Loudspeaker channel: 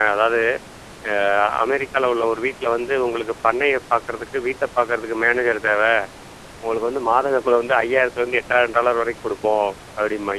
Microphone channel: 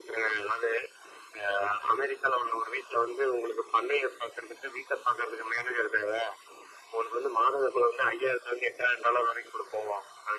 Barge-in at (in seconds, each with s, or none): none